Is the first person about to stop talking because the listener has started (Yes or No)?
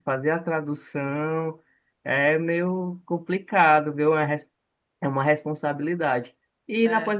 No